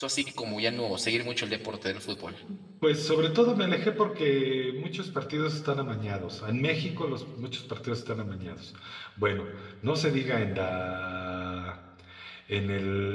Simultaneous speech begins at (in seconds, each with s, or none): none